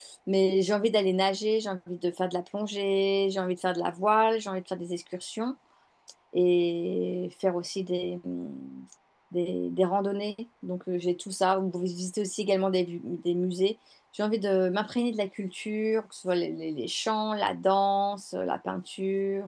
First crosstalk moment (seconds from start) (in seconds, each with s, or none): none